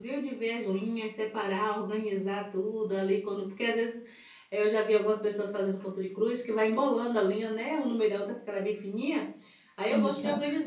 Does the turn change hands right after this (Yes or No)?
No